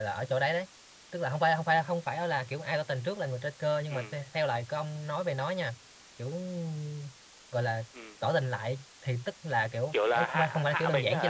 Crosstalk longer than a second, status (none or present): present